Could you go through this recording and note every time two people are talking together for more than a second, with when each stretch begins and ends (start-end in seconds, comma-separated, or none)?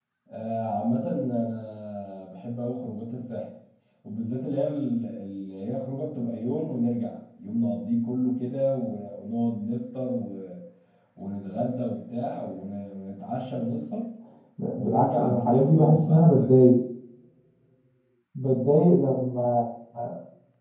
14.7-16.6